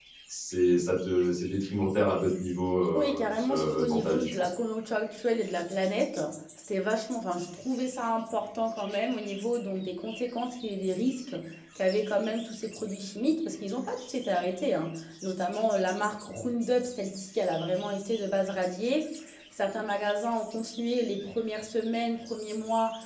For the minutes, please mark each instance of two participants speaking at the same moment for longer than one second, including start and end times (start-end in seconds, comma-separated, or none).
2.9-4.5